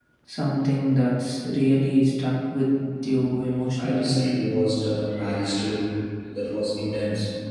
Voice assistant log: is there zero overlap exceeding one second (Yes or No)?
Yes